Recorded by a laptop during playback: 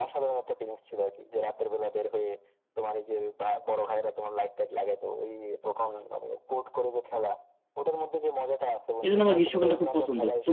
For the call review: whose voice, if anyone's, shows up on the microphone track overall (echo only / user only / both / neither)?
both